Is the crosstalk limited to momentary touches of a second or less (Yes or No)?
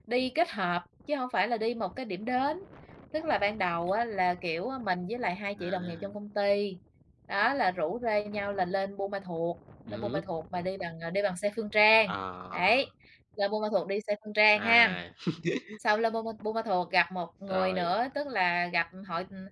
Yes